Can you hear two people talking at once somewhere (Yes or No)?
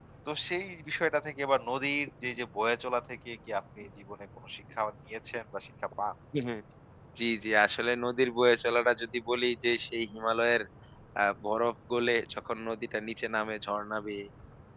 No